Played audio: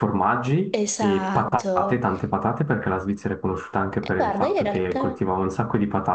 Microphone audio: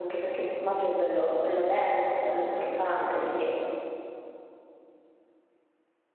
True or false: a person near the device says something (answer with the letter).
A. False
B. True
B